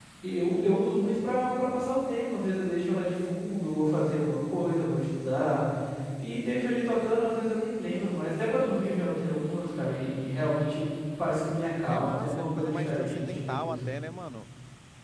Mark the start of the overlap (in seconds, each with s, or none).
11.9 s